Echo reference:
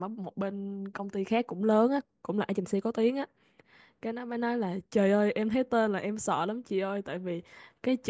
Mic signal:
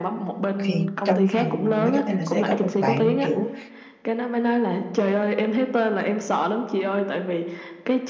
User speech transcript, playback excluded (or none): thì trong phòng marketing là sẽ có một bạn kiểu